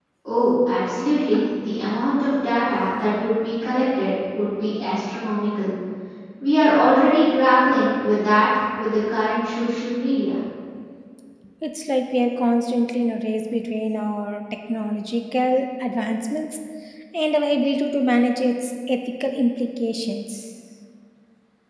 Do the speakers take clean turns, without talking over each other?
Yes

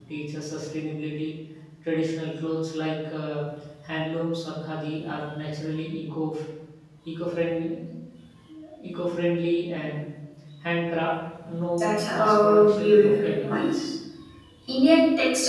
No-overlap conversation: No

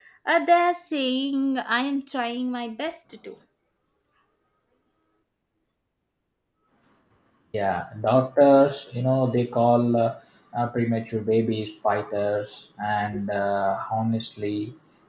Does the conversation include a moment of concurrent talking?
No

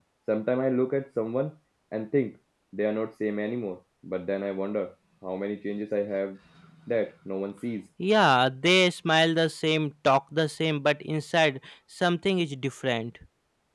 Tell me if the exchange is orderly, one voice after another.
Yes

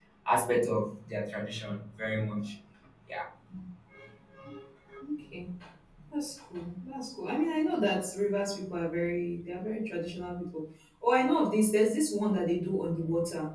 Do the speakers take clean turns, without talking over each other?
Yes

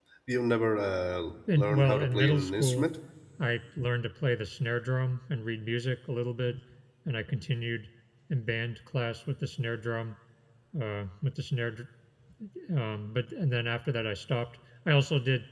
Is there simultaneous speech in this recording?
Yes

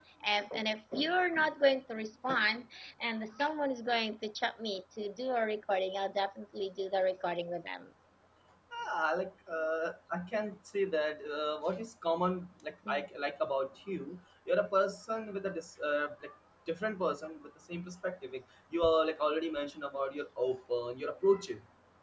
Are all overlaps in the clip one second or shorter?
Yes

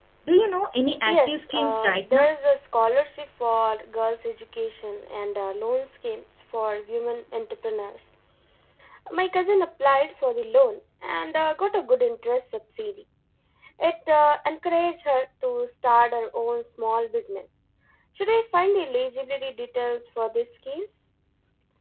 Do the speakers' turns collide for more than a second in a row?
Yes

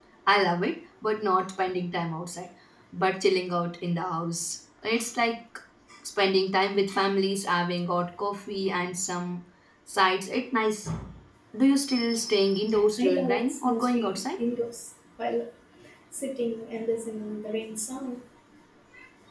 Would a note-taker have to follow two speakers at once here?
Yes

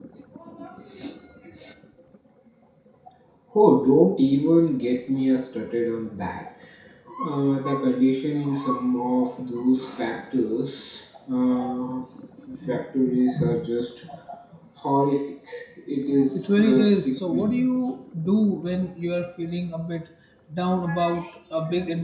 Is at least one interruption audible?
Yes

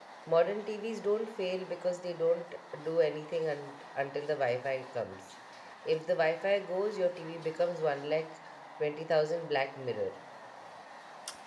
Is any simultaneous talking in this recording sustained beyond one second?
No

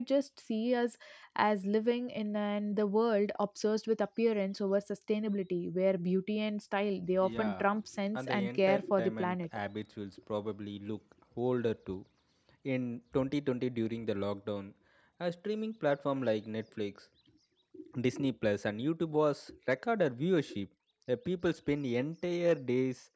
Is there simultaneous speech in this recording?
Yes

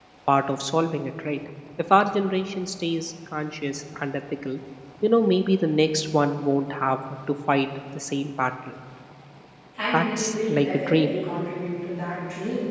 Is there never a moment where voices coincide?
No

